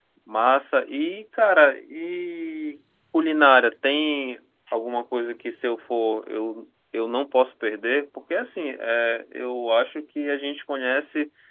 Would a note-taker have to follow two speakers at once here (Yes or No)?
No